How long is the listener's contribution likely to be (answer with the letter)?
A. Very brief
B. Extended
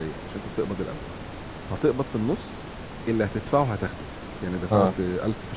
A